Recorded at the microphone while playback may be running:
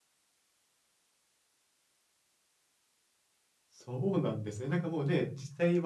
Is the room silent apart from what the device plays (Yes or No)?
No